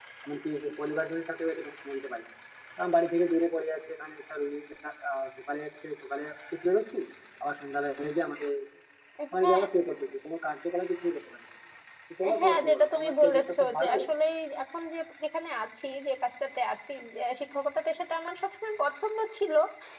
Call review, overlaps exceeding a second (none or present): present